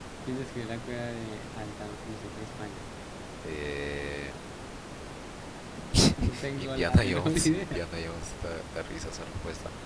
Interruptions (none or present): present